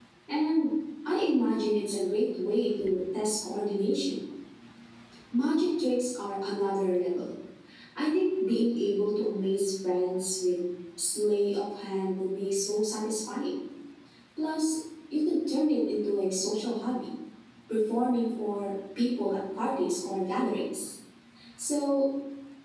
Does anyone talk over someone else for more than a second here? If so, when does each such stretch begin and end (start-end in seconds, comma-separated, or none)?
none